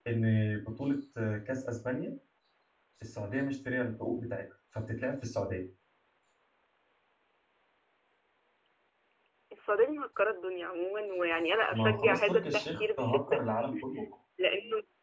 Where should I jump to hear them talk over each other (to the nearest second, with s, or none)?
12 s